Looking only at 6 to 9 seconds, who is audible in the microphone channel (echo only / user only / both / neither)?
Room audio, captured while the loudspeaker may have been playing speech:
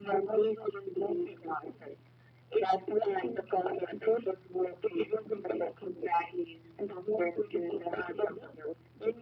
echo only